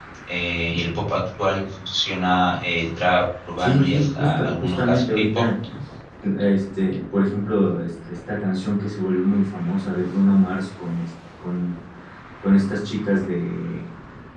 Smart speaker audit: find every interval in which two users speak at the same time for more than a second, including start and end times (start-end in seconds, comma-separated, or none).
3.6-5.5